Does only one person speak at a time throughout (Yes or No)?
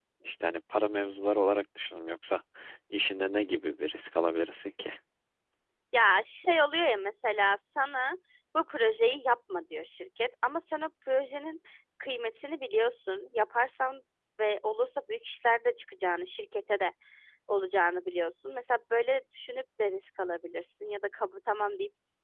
Yes